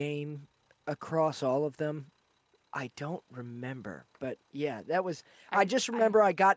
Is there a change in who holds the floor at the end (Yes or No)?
No